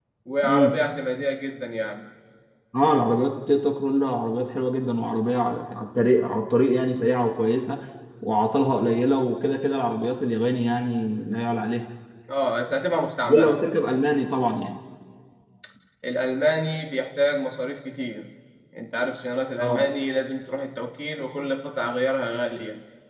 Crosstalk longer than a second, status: none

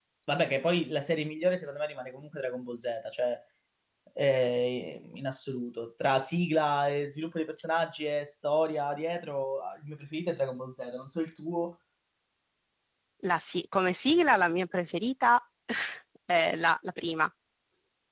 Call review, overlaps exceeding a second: none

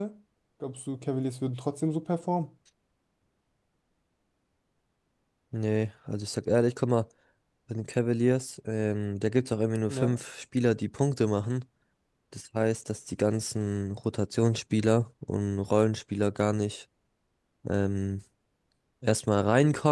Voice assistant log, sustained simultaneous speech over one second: none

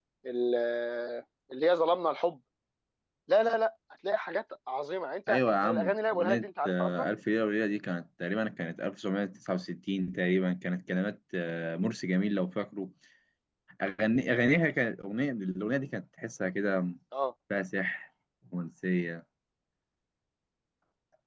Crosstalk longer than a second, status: present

